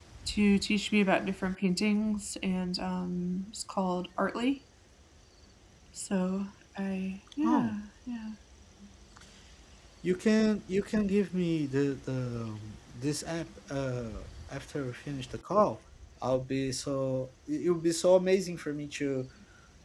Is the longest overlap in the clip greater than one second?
No

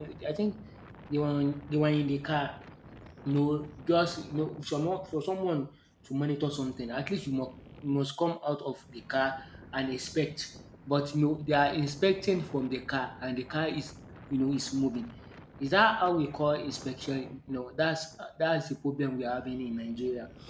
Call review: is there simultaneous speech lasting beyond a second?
No

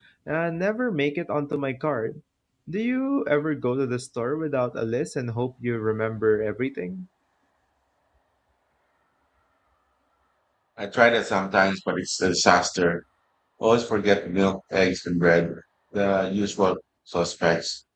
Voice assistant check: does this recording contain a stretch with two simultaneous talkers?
No

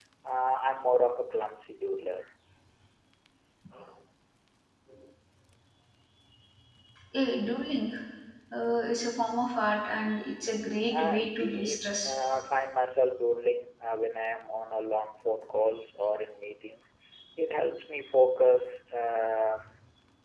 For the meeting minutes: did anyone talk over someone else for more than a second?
Yes, from 10.9 s

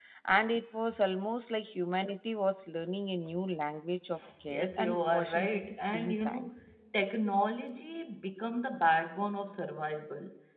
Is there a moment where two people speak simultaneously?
Yes, from 4.5 s

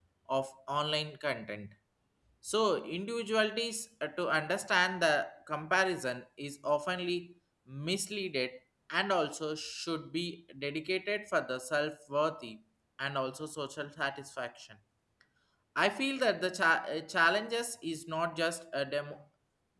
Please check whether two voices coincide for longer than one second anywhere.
No

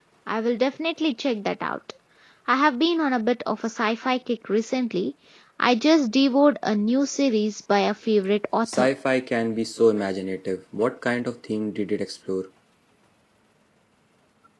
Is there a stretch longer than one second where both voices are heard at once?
No

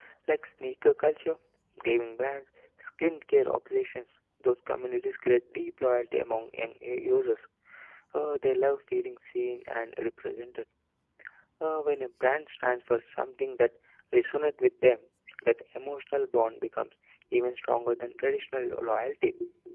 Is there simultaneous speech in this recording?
No

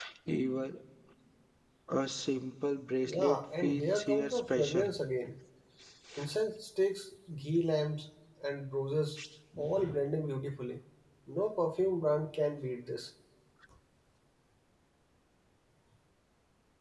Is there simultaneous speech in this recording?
Yes, from 3.0 s

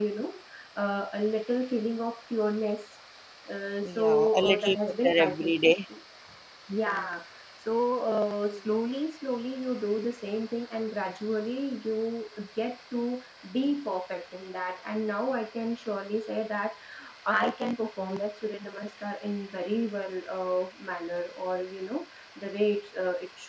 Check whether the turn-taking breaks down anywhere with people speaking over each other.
Yes, from 3.8 s

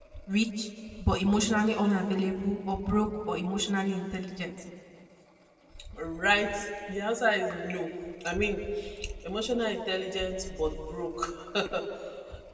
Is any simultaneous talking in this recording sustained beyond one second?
No

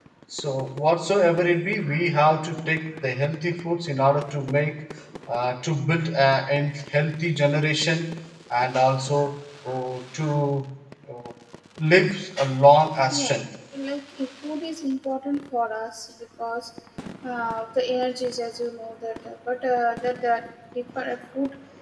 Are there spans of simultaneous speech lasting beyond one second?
No

